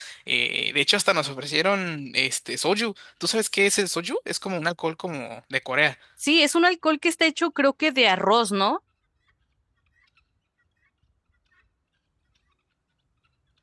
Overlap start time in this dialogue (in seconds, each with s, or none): none